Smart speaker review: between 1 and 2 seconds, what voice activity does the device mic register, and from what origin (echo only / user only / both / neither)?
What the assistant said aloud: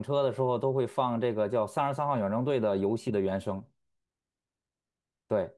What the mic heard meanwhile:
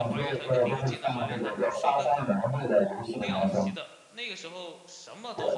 both